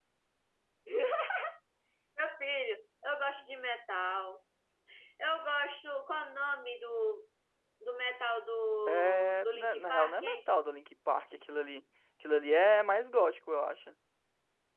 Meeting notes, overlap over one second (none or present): present